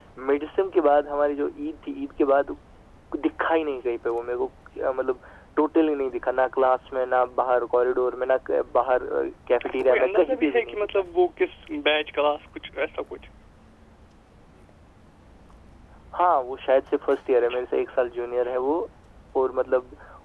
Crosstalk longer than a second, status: present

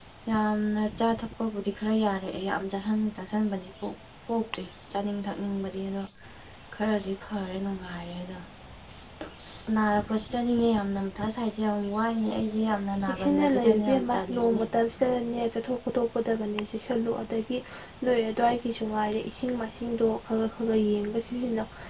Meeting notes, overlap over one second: present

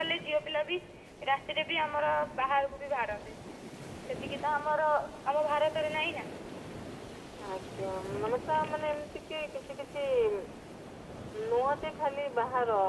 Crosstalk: none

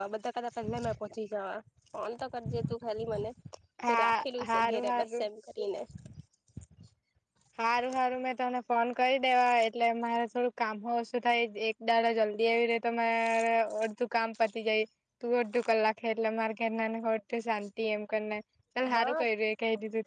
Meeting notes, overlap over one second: present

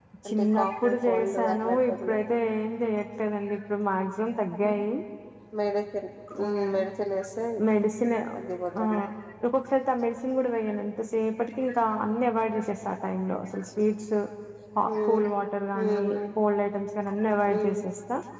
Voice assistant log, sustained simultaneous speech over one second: present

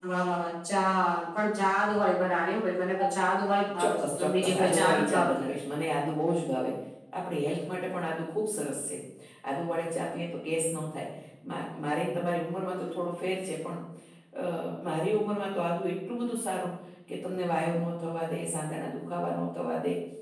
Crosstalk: present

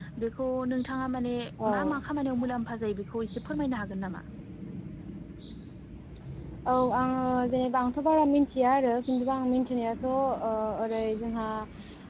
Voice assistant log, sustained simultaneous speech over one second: none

